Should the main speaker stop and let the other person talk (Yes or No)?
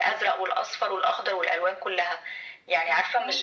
No